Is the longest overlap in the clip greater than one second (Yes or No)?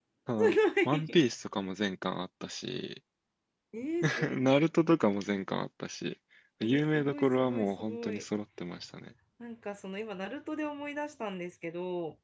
Yes